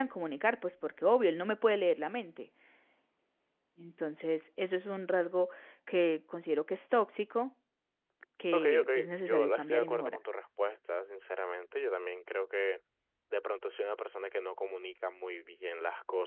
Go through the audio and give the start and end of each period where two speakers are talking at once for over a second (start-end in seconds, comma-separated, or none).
8.5-10.2